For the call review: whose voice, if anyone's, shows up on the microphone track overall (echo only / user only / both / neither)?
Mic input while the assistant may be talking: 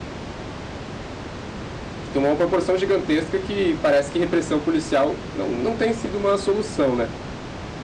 user only